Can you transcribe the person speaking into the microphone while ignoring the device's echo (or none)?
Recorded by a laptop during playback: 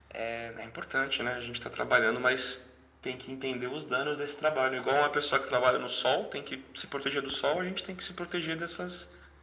none